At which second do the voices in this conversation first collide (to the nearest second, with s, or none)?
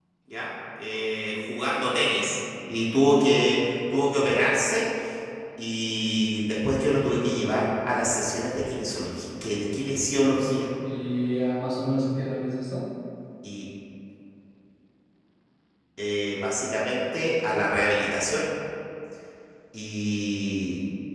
none